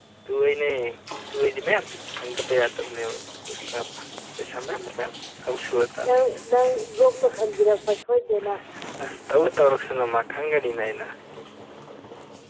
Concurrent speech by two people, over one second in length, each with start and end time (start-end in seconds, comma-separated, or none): none